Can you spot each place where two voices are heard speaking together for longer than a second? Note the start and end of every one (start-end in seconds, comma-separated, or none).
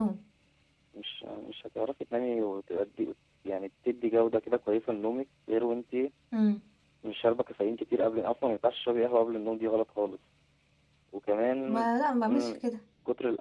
none